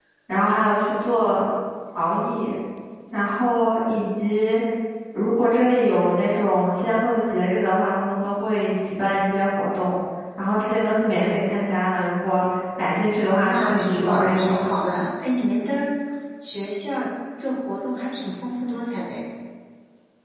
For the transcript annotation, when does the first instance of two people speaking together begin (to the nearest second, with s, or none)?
13 s